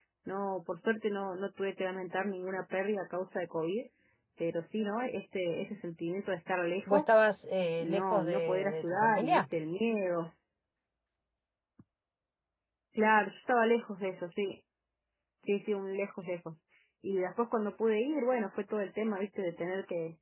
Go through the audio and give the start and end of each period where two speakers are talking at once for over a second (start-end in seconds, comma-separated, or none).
7.8-9.4